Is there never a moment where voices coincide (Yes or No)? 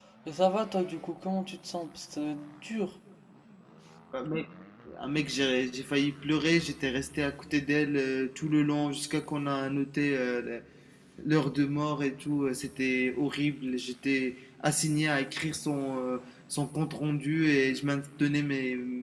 Yes